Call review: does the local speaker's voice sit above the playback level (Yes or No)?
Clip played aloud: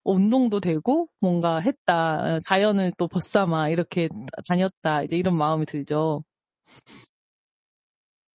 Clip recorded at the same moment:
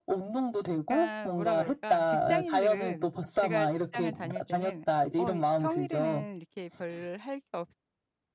No